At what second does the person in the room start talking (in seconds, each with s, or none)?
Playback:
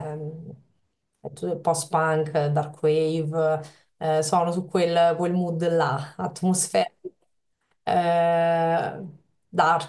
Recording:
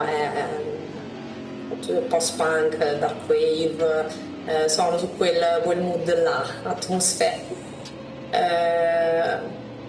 none